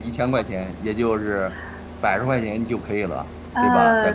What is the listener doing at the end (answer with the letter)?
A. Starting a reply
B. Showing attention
A